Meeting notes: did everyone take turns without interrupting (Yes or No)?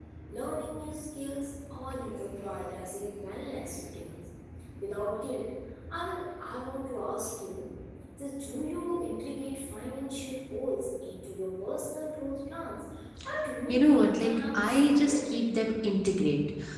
No